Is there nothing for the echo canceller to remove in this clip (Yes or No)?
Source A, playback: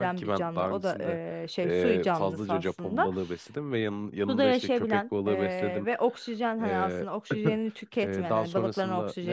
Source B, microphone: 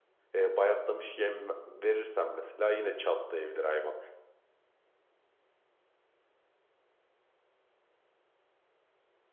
Yes